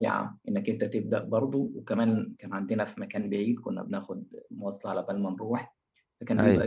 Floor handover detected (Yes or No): No